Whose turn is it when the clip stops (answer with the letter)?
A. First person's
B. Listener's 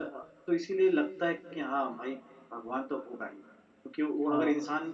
A